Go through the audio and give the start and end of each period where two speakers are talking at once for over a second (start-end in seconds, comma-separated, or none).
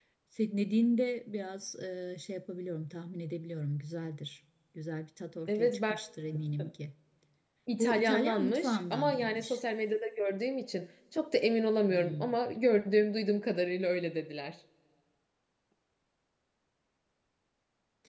7.8-9.6